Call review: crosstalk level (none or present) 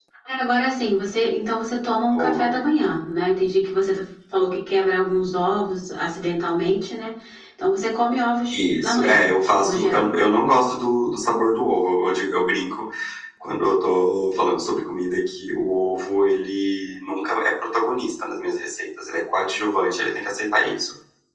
present